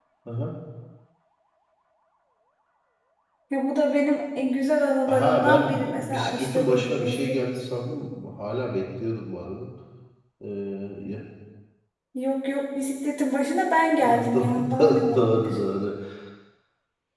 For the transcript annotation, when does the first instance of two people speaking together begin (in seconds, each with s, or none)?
5.1 s